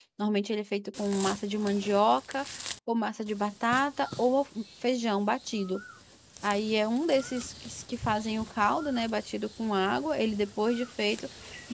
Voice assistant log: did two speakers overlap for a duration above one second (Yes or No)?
No